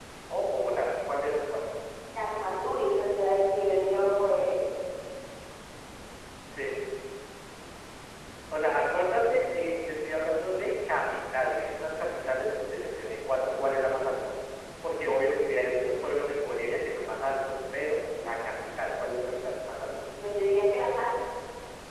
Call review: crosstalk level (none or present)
none